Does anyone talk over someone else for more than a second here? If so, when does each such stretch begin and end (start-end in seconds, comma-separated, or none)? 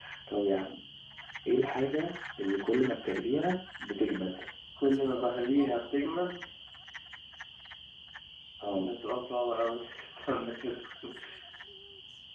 none